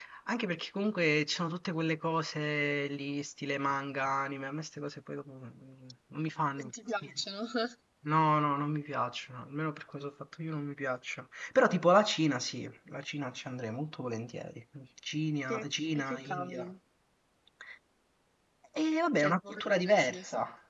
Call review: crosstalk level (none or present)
present